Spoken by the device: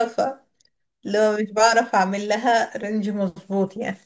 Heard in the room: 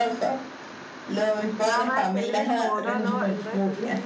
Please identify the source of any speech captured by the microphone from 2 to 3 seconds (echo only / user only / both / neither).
both